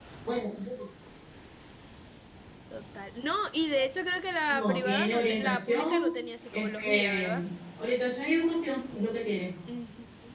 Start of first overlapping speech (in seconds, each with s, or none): 4.5 s